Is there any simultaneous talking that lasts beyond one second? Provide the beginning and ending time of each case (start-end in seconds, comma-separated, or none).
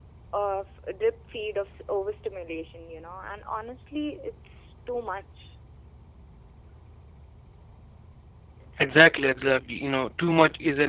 none